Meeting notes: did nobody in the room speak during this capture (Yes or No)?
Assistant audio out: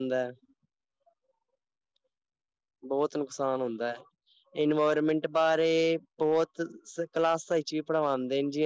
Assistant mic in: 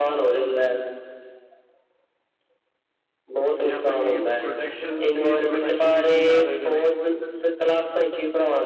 No